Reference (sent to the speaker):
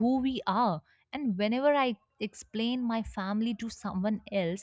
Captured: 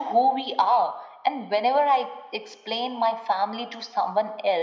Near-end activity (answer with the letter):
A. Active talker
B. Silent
B